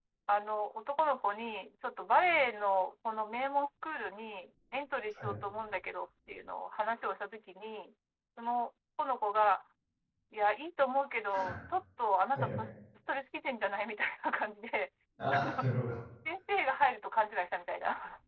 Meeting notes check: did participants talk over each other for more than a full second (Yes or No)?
No